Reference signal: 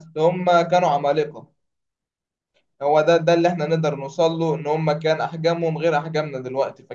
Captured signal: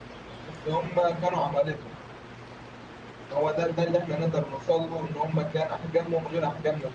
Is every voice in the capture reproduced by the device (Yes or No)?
Yes